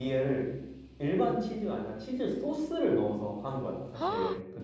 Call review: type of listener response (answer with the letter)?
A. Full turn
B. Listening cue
A